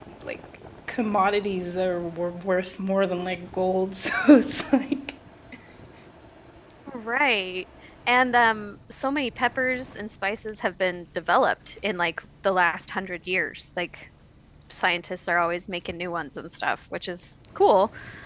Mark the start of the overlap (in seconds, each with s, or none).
none